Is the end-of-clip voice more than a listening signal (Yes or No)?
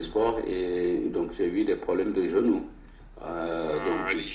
Yes